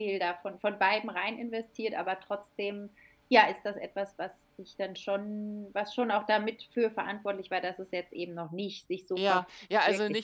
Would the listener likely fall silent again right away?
No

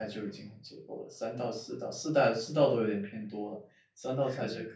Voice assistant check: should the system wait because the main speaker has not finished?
Yes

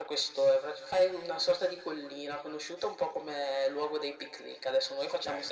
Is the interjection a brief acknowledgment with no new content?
Yes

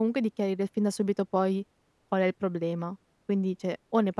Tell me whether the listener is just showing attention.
Yes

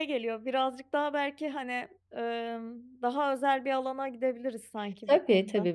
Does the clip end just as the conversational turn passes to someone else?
Yes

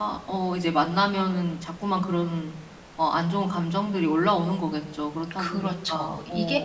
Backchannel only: No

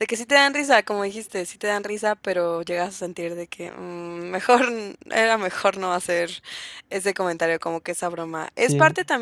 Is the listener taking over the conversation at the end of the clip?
No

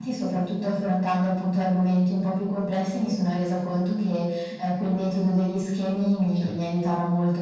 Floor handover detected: No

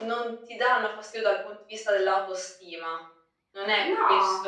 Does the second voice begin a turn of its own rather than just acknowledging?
No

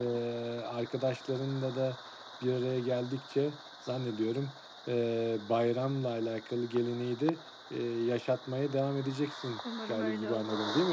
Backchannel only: No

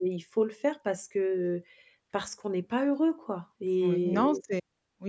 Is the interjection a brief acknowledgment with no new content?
No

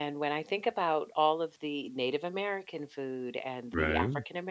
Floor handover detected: No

